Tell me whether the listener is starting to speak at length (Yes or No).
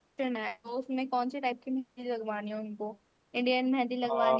No